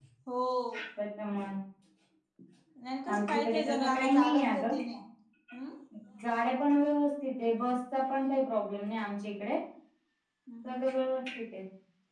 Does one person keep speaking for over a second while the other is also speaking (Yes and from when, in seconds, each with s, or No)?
Yes, from 3.1 s